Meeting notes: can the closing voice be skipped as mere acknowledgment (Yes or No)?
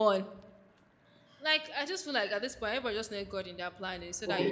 No